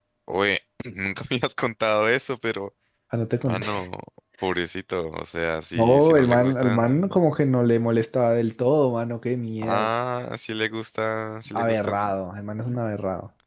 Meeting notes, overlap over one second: present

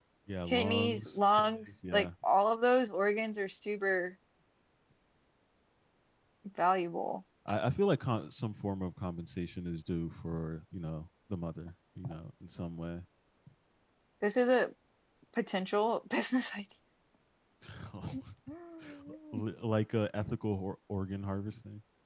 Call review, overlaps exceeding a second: present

